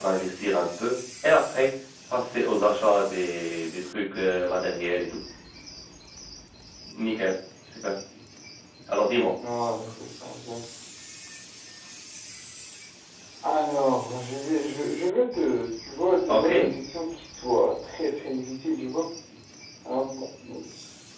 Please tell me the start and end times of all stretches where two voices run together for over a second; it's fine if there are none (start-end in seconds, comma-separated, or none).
none